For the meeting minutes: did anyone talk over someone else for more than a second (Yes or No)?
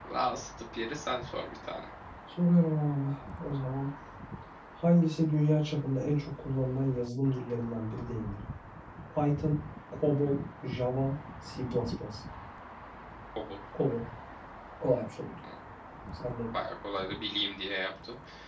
No